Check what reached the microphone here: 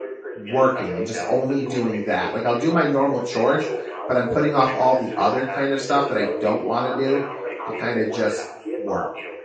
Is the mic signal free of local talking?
No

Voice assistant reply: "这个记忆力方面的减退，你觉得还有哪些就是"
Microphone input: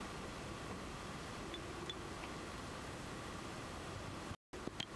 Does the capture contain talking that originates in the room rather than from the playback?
No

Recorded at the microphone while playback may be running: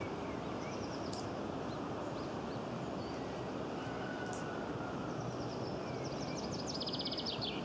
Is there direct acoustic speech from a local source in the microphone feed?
No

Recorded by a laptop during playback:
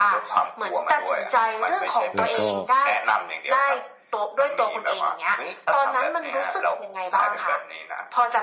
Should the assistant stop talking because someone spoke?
Yes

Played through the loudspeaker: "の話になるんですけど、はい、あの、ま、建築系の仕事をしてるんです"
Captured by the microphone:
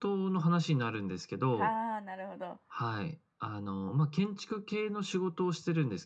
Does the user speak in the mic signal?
Yes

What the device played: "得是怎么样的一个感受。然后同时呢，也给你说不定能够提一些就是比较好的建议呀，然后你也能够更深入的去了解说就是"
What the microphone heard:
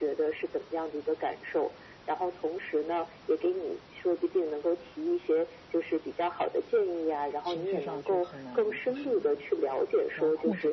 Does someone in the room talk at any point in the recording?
Yes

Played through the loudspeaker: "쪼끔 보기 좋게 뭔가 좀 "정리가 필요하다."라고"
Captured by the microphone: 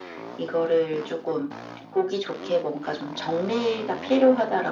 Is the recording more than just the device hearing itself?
No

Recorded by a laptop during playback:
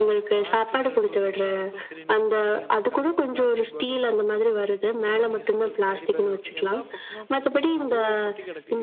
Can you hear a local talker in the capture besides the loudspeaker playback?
Yes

